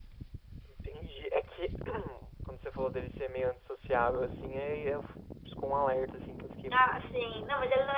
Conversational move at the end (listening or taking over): taking over